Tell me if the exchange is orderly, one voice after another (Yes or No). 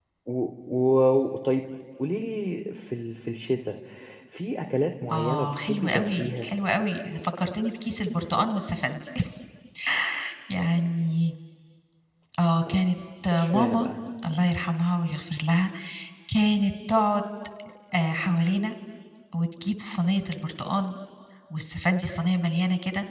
No